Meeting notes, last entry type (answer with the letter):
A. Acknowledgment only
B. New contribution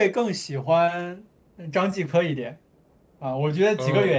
A